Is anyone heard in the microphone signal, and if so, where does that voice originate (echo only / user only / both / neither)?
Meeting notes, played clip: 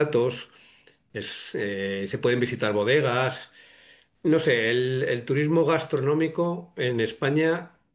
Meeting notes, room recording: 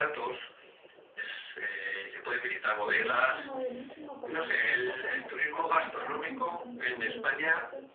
both